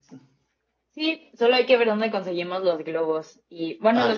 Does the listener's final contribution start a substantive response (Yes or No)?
No